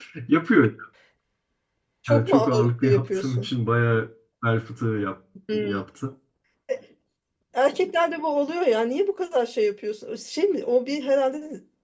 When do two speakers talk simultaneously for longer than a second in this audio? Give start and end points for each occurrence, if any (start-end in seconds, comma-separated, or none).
2.1-3.5